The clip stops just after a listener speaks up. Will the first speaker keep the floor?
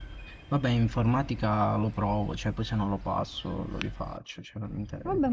No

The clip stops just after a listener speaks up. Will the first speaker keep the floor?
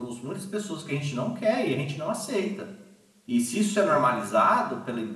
Yes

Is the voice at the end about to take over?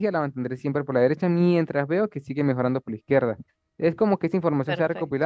Yes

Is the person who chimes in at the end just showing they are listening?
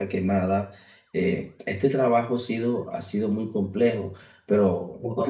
No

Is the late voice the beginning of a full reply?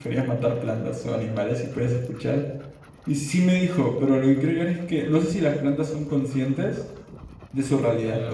Yes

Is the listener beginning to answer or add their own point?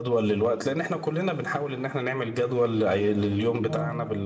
No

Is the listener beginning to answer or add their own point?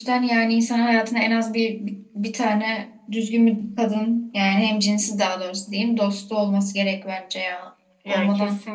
Yes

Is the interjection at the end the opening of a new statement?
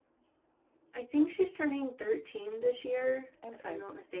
No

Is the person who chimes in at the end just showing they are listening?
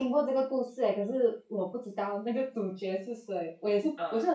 Yes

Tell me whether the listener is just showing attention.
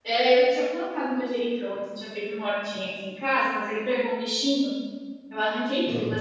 Yes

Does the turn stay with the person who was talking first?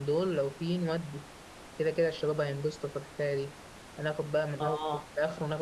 Yes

